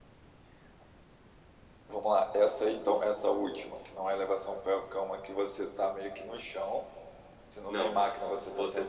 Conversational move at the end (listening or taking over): taking over